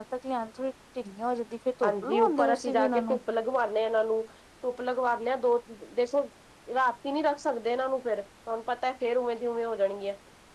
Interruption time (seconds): 1.8 s

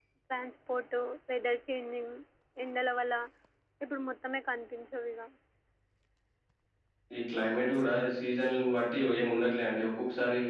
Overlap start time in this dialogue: none

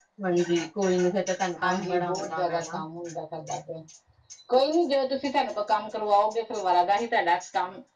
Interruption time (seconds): 1.6 s

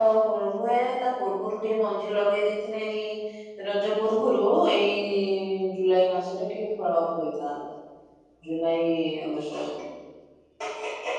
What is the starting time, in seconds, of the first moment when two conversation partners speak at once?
none

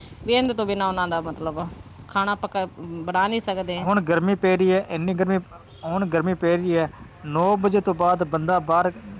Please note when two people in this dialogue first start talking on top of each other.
none

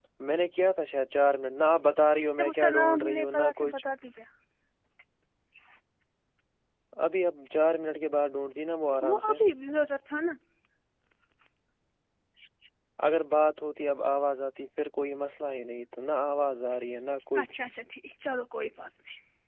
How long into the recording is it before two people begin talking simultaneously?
2.4 s

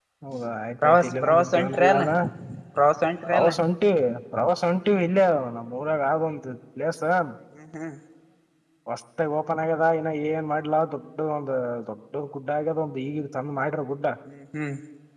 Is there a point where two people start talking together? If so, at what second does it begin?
0.8 s

